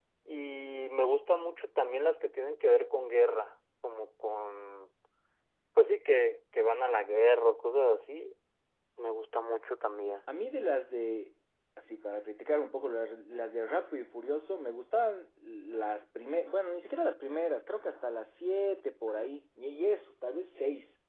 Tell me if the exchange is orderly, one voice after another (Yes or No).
Yes